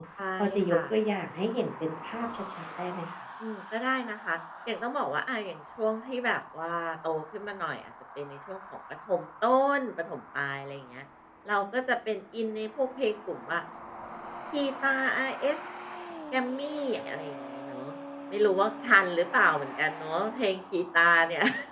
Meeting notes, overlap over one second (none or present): none